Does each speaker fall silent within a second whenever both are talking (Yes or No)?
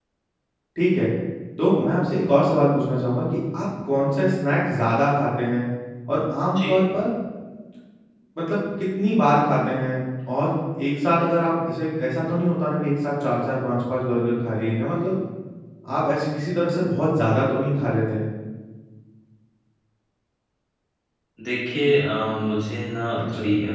Yes